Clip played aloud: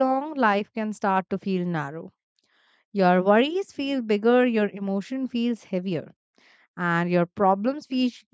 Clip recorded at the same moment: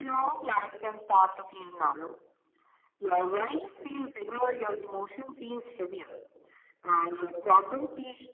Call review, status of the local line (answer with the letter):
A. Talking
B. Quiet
B